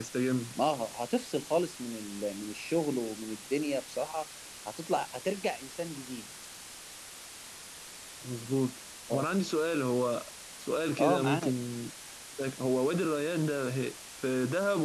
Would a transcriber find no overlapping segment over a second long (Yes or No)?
Yes